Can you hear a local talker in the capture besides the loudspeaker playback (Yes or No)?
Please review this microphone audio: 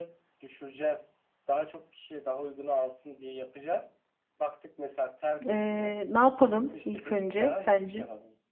Yes